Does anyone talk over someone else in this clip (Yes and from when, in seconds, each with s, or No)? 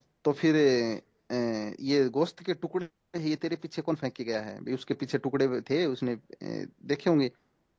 No